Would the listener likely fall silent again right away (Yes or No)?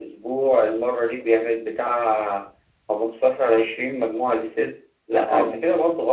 Yes